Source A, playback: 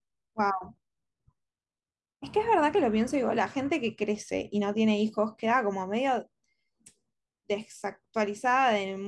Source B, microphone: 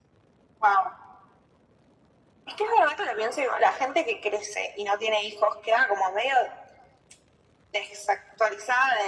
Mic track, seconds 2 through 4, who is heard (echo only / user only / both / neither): echo only